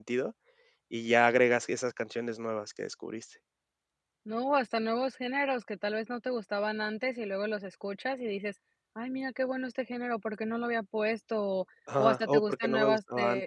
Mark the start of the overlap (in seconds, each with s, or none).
11.9 s